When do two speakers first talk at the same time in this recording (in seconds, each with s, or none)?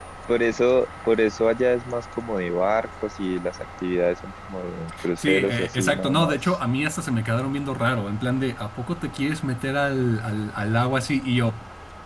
5.2 s